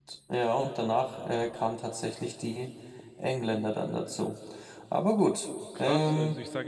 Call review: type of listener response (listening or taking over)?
taking over